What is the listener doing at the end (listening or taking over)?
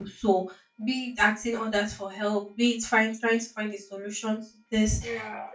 listening